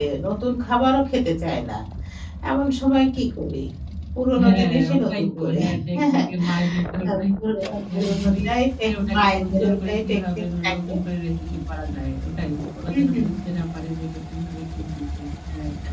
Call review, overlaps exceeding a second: present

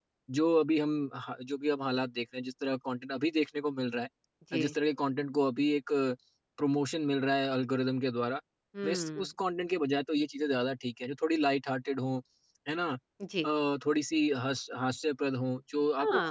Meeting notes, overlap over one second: none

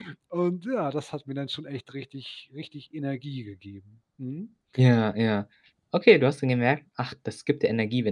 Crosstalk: none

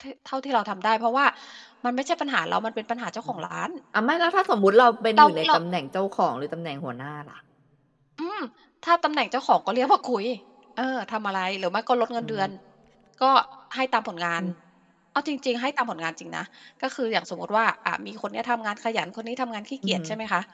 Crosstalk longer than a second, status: none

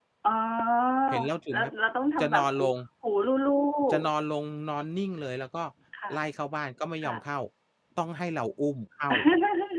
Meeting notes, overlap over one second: none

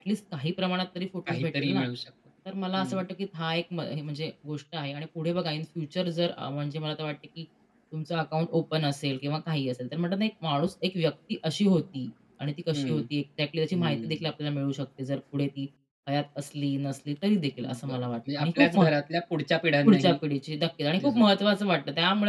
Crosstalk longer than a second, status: present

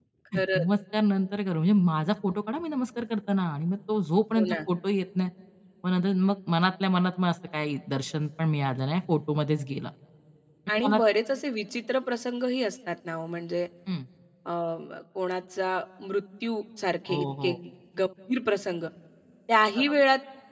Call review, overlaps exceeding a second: none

